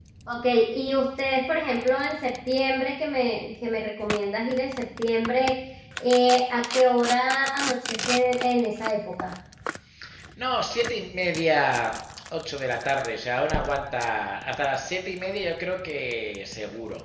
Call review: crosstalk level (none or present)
none